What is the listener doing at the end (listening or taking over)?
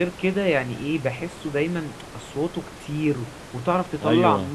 listening